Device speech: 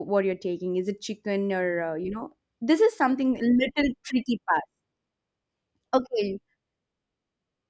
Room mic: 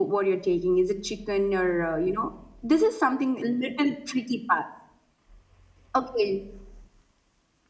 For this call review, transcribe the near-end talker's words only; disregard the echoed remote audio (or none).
none